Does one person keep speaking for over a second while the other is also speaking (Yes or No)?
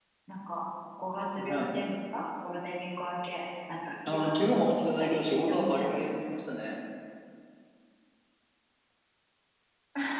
Yes